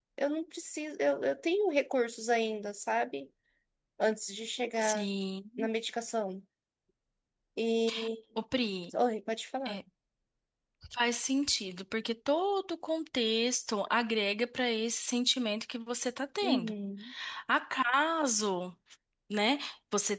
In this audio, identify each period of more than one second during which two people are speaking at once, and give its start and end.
none

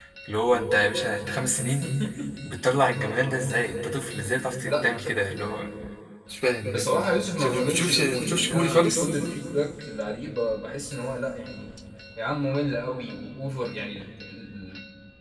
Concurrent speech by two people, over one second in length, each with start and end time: 7.4-9.1

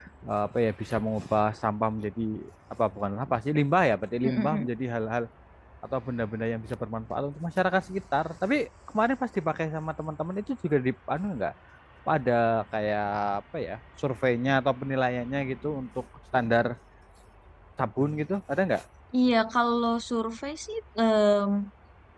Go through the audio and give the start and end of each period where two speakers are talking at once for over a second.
none

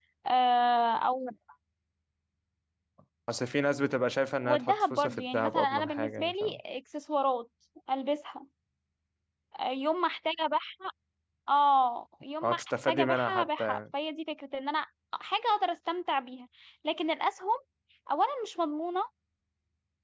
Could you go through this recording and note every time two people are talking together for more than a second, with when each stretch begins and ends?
4.4-6.6, 12.4-13.8

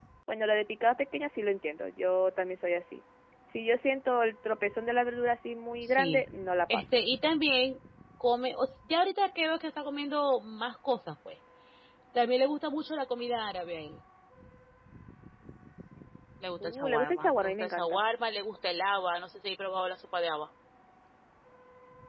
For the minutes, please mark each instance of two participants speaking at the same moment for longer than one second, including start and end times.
16.6-18.0

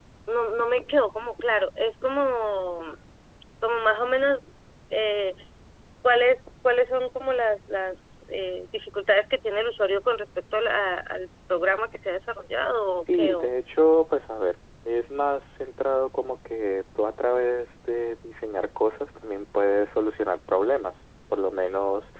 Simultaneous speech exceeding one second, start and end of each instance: none

